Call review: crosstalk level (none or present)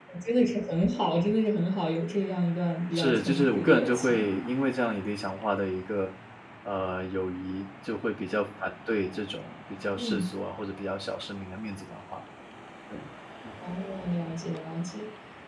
present